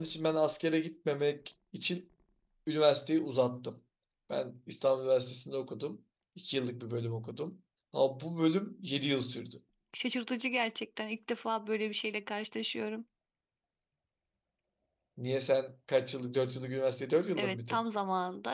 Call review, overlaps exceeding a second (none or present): none